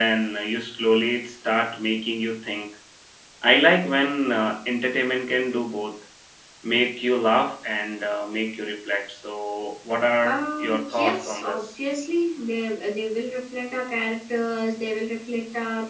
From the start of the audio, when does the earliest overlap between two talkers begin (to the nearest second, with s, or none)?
10 s